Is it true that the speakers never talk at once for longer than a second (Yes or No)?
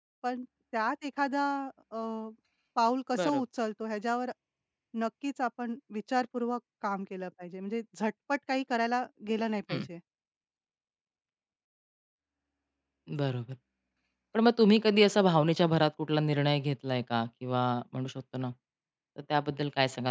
Yes